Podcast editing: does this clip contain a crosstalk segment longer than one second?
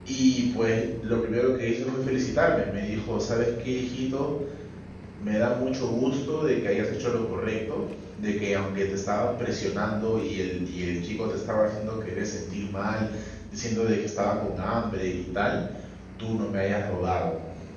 No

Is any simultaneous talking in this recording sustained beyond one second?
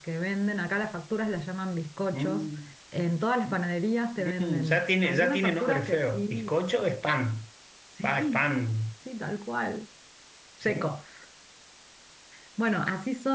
Yes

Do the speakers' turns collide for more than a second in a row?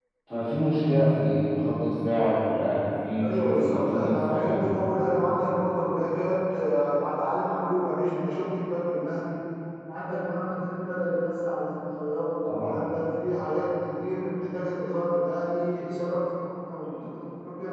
Yes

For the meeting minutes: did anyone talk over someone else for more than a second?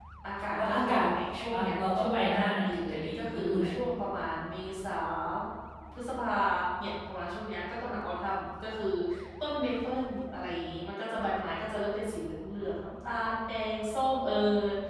Yes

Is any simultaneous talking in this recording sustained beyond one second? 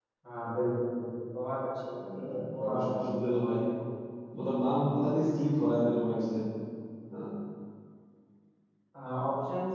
Yes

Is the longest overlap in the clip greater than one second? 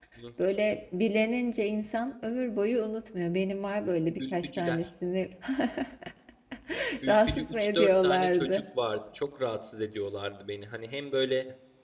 Yes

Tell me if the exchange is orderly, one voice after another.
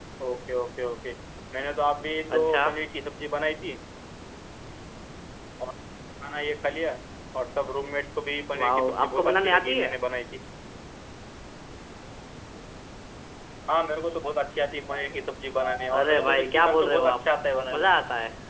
No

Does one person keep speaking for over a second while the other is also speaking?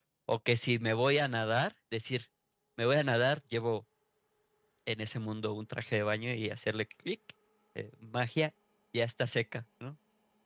No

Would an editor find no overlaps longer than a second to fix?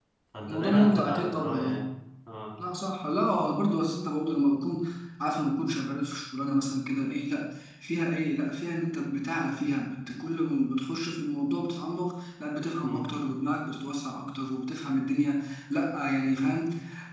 No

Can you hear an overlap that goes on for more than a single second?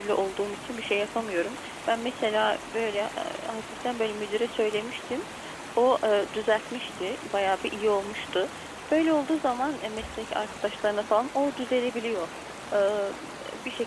No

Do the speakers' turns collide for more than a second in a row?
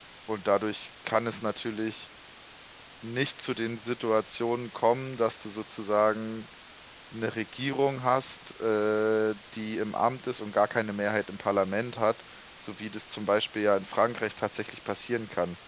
No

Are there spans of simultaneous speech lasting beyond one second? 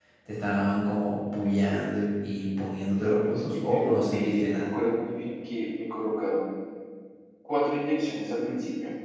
Yes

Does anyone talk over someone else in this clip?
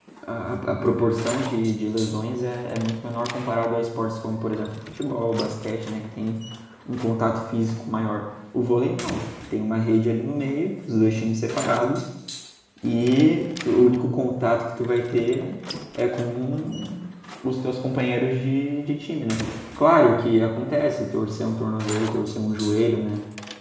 No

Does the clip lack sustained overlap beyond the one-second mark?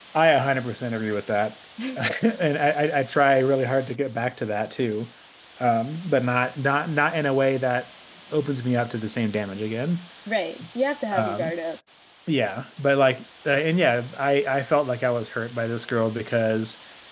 Yes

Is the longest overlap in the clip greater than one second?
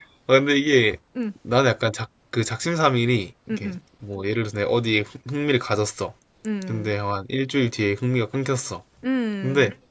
No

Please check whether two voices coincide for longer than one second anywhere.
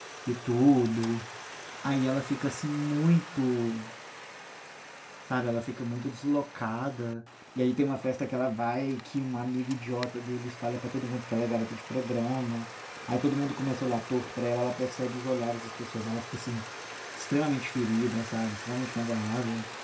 No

